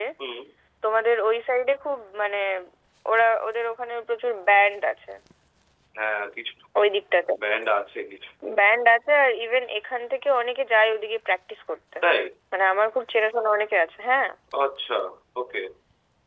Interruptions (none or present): none